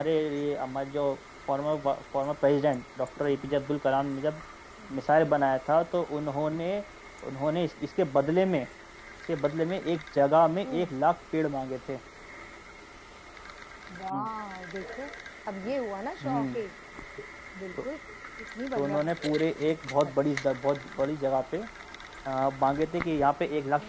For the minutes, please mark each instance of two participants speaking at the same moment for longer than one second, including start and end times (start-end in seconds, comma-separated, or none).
none